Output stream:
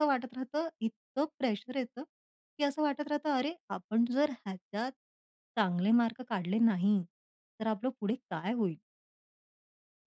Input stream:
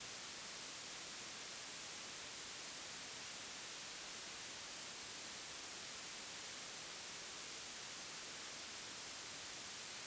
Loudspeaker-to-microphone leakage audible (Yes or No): No